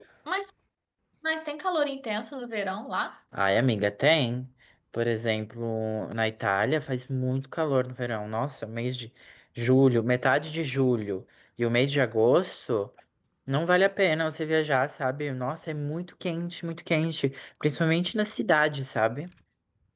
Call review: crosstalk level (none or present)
none